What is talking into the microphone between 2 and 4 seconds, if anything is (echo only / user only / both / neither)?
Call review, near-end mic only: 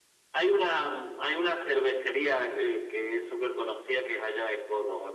echo only